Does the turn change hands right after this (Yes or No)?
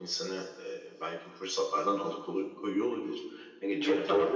Yes